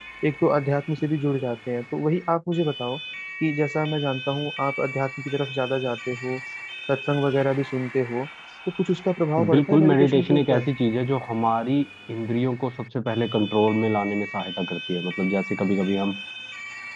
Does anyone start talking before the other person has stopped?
Yes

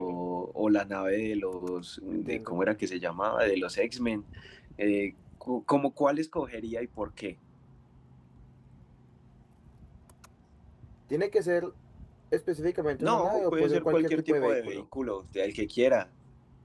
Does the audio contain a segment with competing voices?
Yes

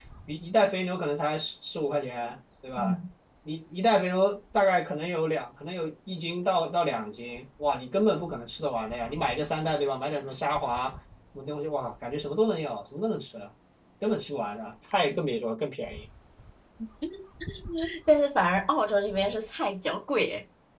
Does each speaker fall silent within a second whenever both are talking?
Yes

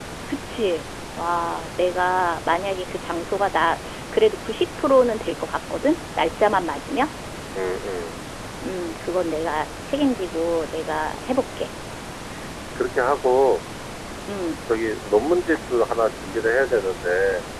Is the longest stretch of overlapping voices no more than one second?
Yes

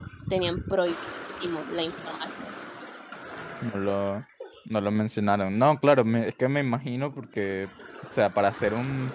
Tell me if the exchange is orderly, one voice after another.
Yes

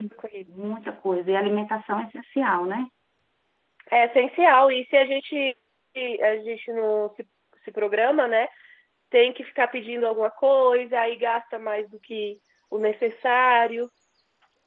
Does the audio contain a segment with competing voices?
No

